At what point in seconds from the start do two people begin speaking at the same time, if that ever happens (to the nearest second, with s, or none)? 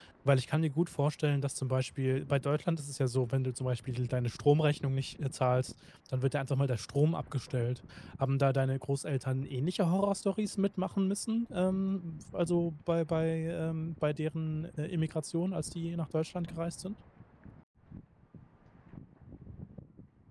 none